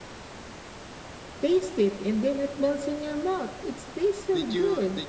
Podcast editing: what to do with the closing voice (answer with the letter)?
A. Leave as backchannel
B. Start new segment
B